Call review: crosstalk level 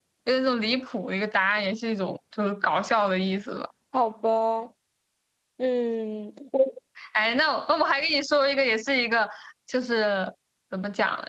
none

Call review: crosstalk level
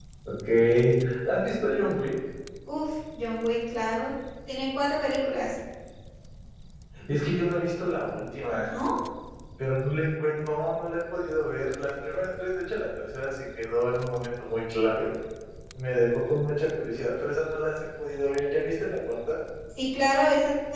none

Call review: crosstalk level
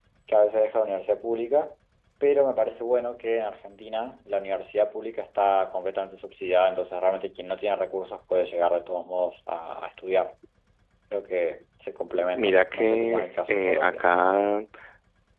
present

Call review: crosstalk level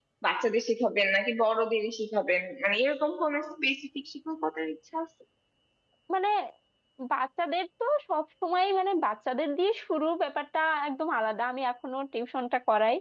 none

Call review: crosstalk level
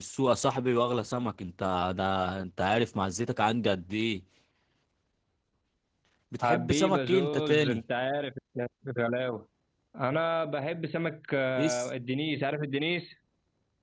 present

